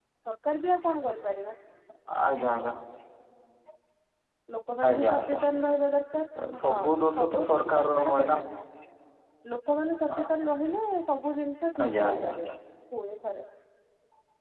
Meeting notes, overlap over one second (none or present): present